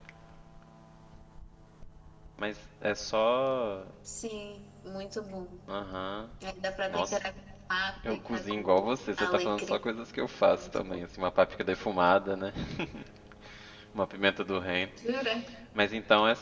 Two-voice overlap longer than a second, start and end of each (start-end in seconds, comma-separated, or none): 8.1-9.8